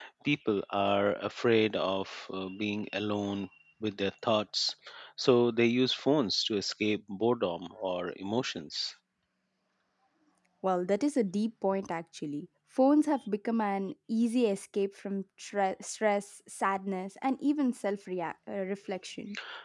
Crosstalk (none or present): none